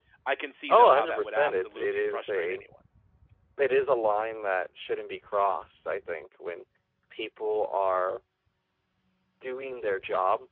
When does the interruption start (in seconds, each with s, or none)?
0.7 s